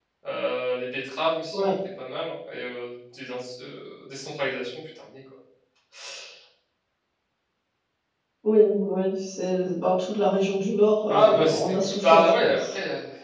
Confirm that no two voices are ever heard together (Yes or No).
No